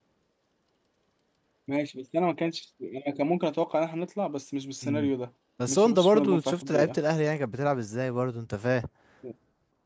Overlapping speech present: Yes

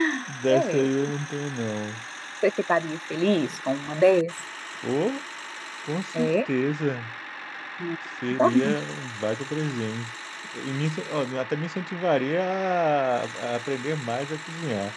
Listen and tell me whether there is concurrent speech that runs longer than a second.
No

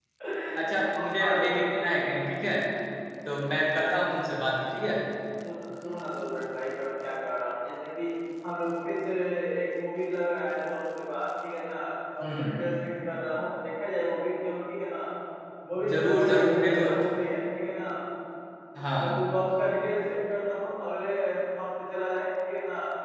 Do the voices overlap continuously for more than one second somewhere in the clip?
Yes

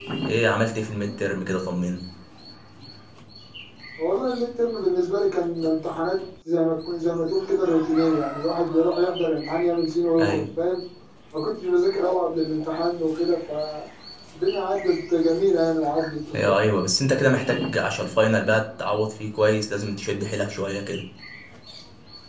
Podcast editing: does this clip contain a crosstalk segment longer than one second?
No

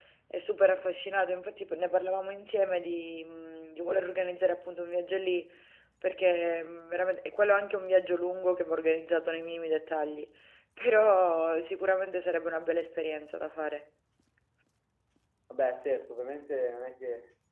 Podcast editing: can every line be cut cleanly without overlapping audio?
Yes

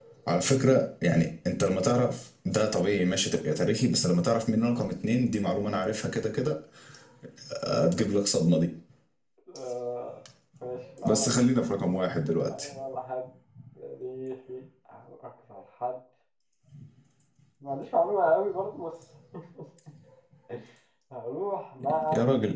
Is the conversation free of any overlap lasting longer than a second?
Yes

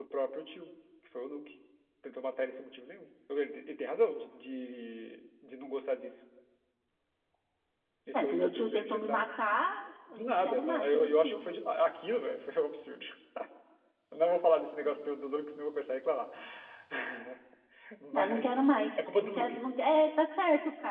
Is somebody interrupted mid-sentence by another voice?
Yes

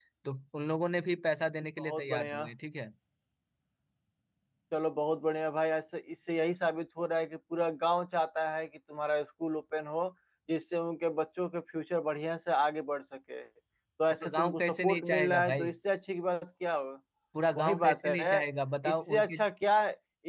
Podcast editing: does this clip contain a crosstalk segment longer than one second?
Yes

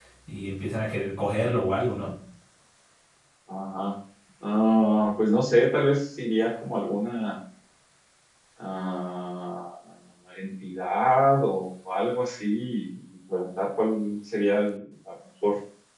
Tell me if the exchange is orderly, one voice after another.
Yes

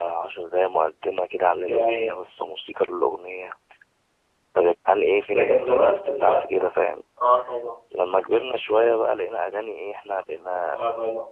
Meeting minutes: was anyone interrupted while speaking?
Yes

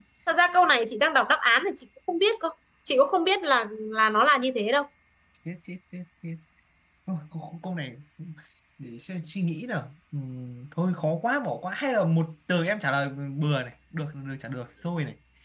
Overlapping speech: No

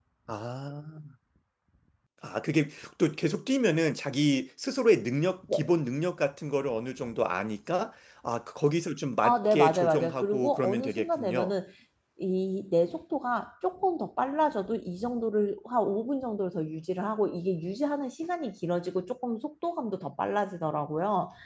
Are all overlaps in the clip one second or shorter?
No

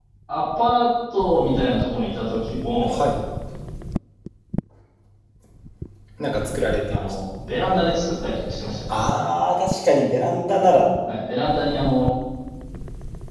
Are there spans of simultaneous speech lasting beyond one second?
No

